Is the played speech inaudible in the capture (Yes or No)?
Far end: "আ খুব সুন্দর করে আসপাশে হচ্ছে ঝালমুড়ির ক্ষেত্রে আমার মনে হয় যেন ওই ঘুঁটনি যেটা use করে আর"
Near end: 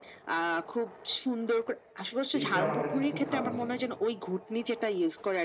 No